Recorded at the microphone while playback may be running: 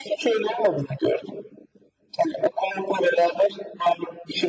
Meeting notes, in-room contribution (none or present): none